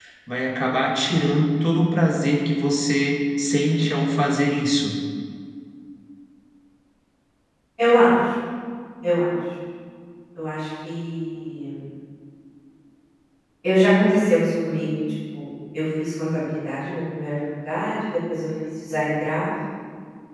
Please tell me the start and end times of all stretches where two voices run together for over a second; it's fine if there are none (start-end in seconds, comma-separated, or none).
none